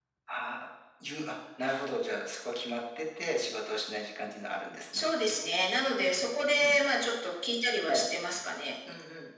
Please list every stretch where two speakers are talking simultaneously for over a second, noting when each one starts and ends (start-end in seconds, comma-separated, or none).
none